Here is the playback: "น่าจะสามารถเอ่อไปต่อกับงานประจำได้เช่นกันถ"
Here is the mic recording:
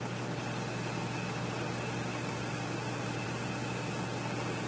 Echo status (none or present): none